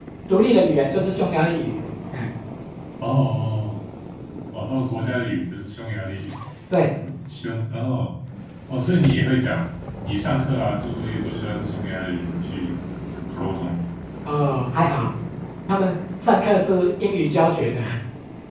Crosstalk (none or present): none